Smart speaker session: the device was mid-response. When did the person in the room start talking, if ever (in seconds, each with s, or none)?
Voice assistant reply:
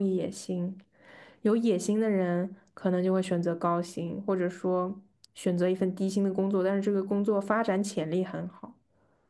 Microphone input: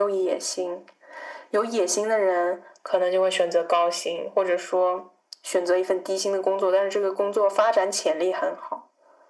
none